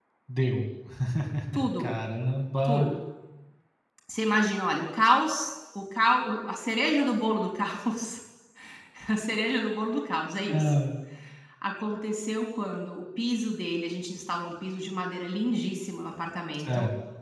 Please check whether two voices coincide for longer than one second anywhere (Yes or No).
No